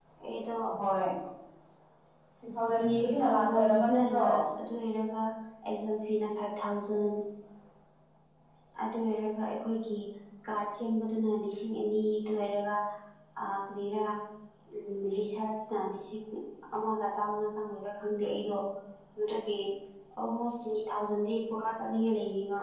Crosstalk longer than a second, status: present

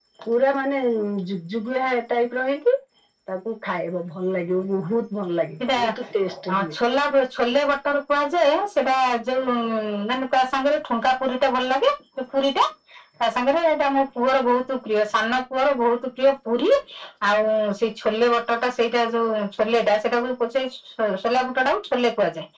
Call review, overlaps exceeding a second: none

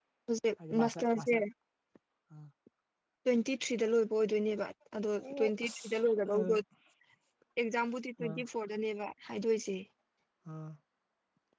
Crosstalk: present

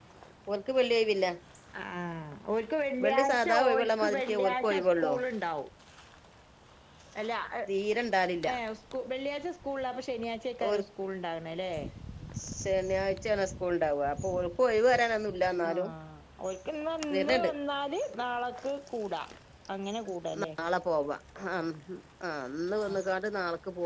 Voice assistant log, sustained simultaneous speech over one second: present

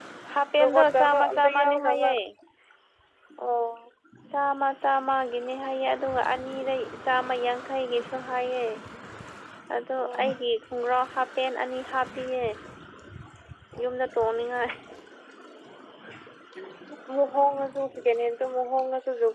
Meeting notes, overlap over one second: present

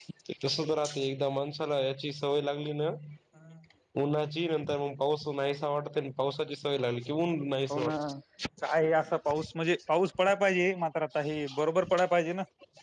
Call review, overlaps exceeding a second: none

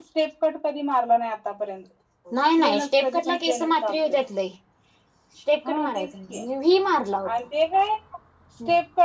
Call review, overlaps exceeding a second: present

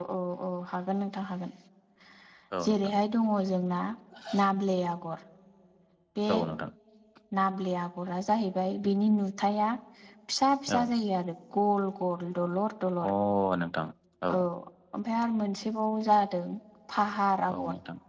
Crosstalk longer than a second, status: none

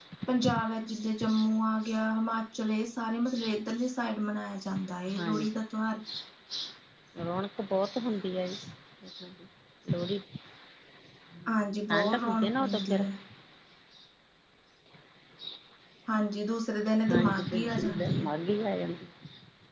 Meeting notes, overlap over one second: present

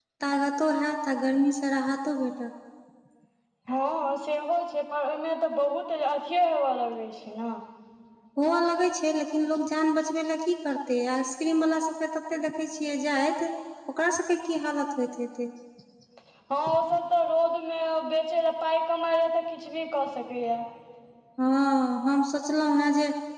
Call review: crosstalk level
none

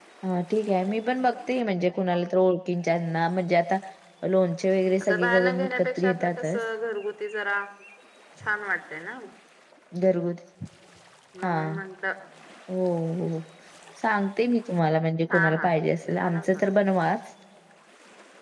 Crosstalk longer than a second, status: present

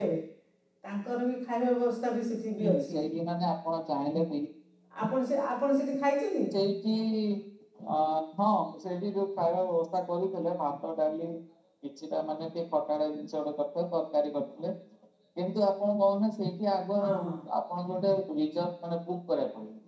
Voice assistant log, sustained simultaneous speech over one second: none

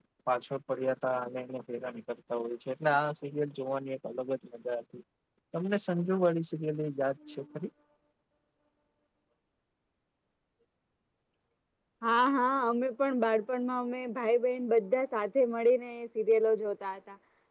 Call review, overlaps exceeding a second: none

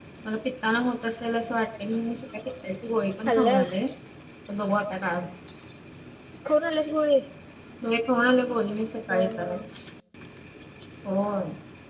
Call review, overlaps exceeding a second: none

